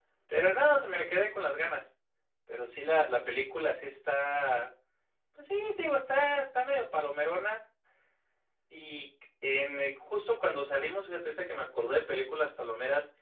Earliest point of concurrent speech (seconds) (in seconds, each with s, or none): none